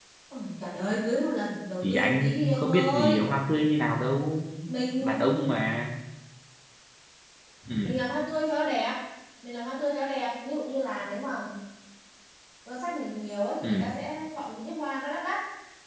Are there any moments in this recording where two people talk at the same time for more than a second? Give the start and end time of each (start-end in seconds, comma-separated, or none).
1.8-3.2